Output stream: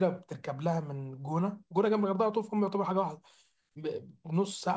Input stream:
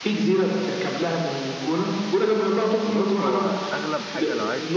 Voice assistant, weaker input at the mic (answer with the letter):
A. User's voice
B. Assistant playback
A